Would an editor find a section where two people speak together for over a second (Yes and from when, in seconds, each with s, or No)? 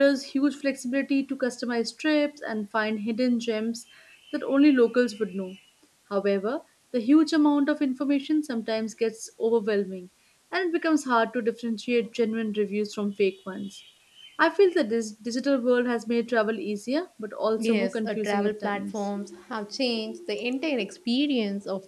Yes, from 17.6 s